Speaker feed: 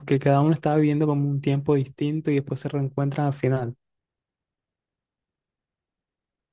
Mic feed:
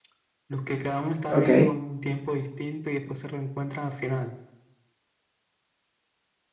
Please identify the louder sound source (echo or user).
user